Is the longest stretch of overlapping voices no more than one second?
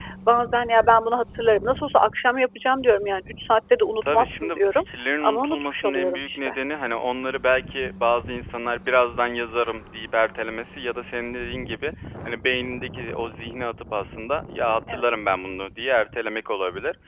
No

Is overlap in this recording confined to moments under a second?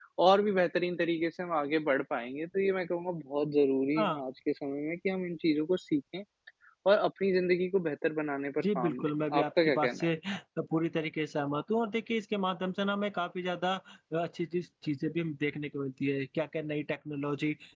No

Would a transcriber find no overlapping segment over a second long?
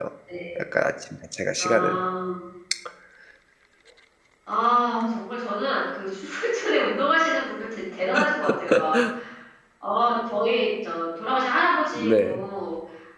Yes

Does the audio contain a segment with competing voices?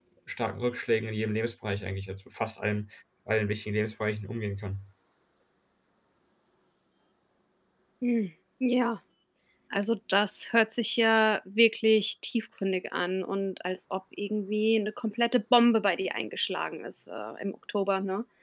No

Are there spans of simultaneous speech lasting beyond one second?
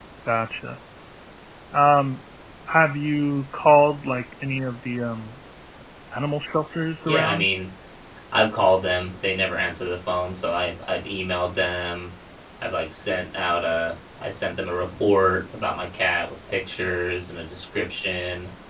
No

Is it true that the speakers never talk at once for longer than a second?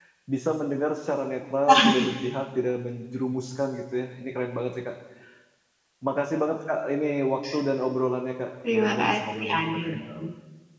No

